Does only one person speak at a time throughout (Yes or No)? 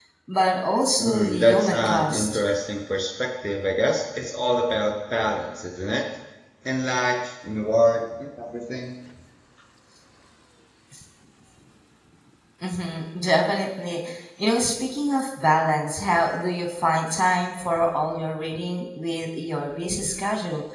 No